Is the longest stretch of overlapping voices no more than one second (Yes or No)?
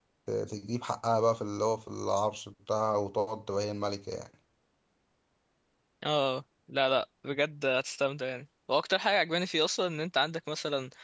Yes